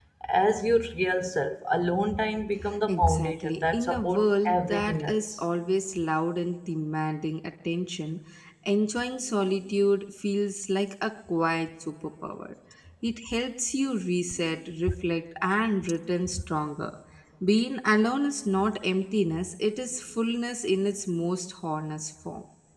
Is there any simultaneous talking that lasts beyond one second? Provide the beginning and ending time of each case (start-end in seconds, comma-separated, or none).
2.9-5.4